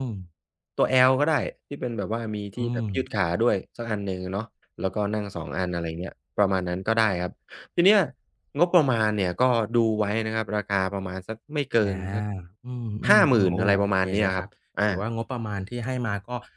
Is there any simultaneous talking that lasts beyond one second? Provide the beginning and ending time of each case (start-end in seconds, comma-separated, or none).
13.1-14.4